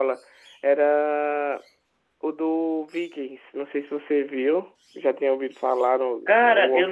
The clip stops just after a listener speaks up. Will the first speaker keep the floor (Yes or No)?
No